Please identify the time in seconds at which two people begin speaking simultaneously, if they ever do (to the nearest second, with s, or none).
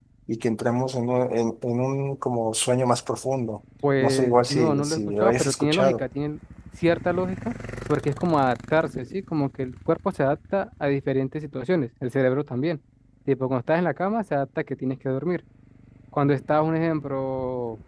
4 s